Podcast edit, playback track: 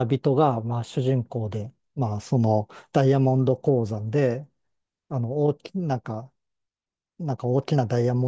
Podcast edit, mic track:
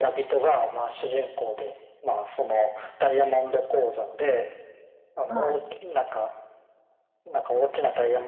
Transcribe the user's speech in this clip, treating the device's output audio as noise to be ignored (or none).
はい